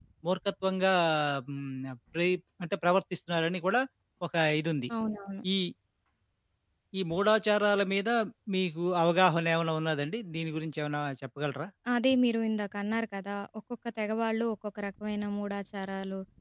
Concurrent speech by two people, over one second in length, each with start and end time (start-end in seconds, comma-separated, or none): none